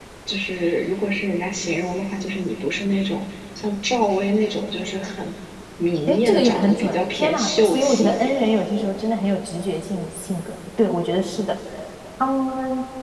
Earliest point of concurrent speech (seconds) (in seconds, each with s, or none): 6.1 s